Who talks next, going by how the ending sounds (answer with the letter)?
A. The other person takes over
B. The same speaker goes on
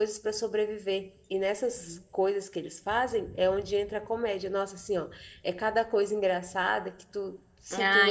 A